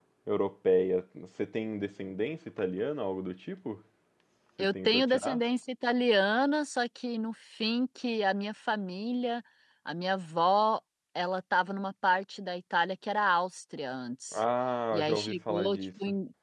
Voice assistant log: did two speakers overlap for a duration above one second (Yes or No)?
Yes